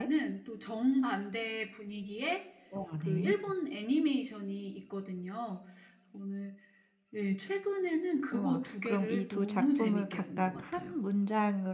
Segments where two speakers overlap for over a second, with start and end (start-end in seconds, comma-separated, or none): 8.3-10.9